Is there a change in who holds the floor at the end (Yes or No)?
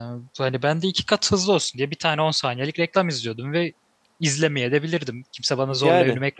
Yes